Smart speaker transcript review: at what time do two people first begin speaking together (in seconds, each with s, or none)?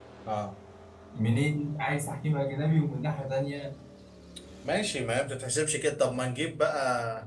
none